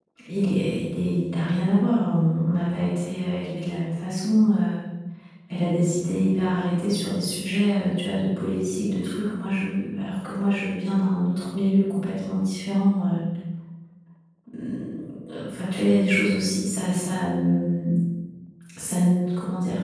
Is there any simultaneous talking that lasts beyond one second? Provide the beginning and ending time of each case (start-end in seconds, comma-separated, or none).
none